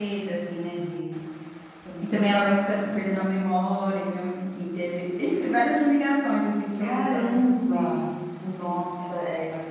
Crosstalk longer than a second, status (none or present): present